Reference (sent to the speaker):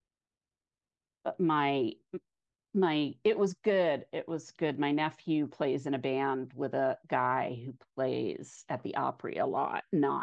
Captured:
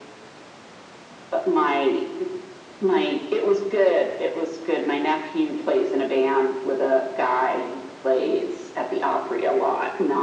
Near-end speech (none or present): none